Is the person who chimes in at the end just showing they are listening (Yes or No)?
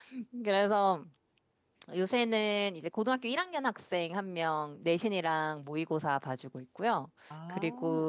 Yes